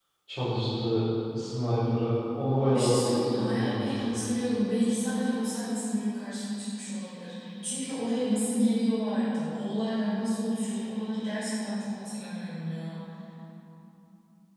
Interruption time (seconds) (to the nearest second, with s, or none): 3 s